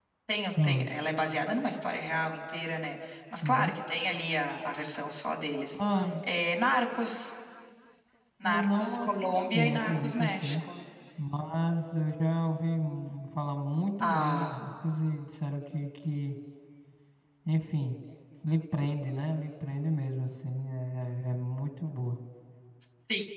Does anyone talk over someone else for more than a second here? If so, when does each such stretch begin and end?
8.4-10.6

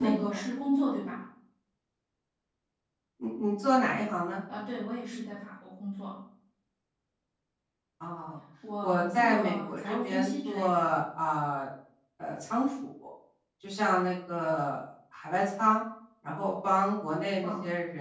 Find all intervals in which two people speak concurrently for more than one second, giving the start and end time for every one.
8.8-10.6

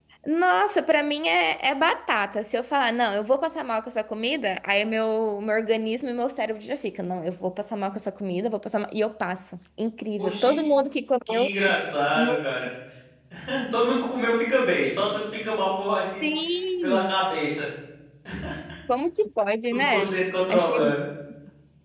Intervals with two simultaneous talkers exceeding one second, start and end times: none

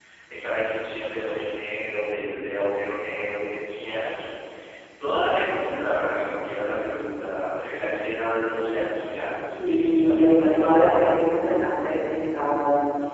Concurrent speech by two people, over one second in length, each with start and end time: 9.6-11.1

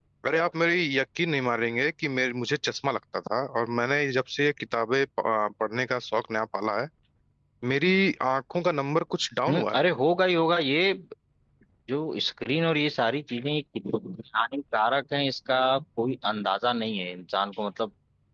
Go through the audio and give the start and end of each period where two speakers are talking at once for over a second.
none

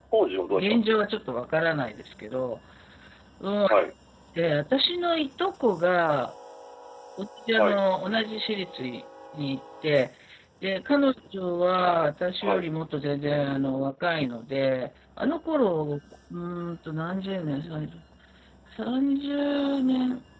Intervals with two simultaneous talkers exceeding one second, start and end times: none

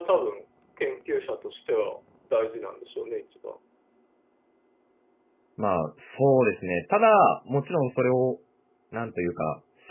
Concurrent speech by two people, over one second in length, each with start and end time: none

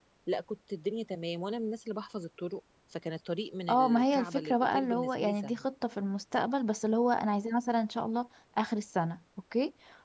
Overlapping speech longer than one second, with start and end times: 3.7-5.6

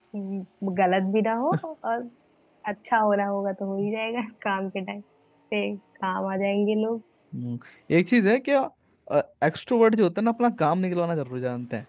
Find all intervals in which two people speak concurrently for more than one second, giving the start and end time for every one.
none

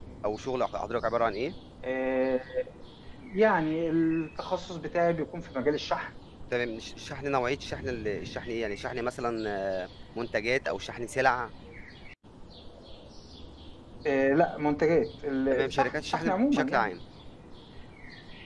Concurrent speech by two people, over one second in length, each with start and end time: 15.5-16.9

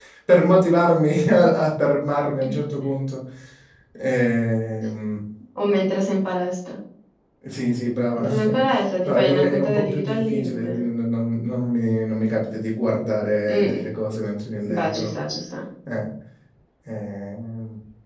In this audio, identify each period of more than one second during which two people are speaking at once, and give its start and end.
9.1-10.8

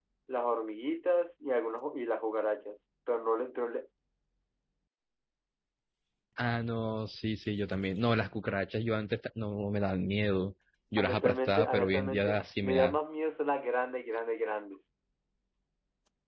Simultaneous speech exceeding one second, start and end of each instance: 11.0-13.0

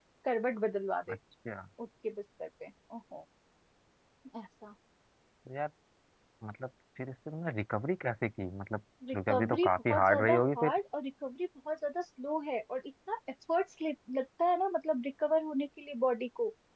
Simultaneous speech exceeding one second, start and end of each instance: 9.1-10.7

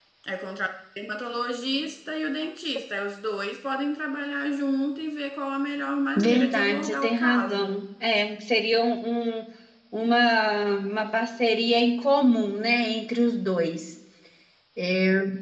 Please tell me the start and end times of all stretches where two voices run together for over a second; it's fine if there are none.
6.2-7.8

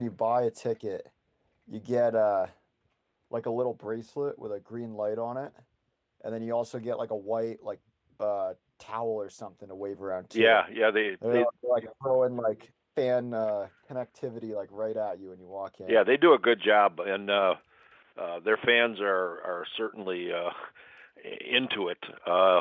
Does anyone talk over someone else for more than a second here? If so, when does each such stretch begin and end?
none

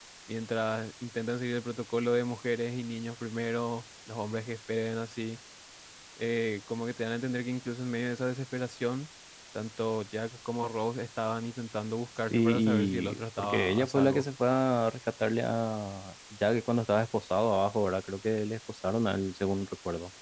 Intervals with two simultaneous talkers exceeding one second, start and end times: 12.3-14.2

